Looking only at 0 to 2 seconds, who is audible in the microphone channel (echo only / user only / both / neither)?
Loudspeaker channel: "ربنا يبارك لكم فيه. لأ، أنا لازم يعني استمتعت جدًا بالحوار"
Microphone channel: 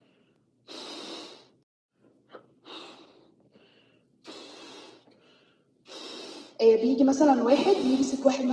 neither